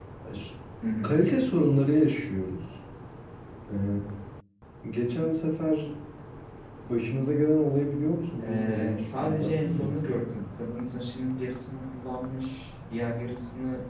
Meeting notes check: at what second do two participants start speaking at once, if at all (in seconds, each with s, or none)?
8.4 s